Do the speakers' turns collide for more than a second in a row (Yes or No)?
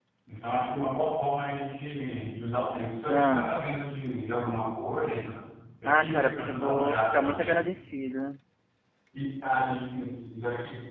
Yes